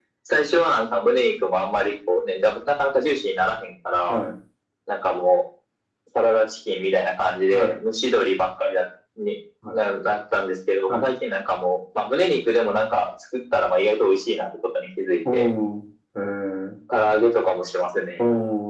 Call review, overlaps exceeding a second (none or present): none